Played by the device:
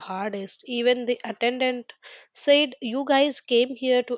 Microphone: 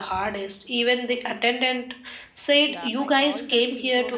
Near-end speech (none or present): present